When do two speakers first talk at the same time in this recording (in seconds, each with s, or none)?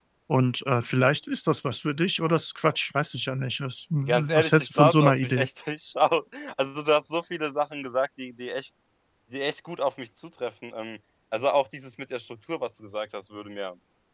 4.0 s